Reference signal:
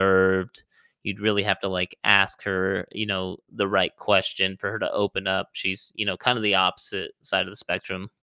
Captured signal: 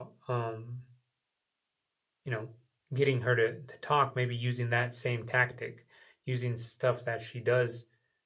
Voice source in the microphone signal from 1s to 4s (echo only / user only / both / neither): user only